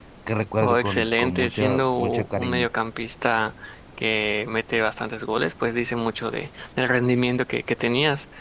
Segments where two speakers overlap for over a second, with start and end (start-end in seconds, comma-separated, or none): 0.6-2.7